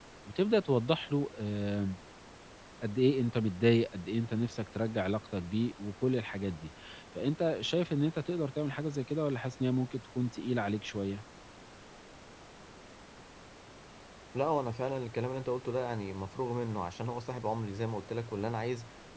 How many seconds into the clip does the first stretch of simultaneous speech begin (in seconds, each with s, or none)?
none